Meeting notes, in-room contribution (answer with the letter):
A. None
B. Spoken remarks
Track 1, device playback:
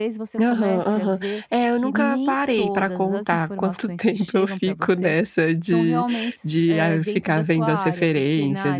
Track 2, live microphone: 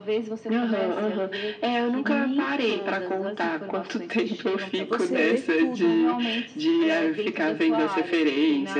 B